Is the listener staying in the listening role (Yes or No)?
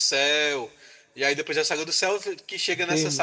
No